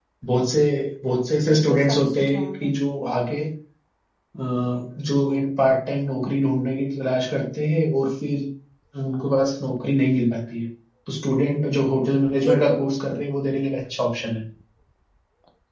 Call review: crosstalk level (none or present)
present